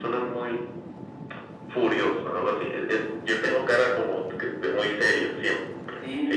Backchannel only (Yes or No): No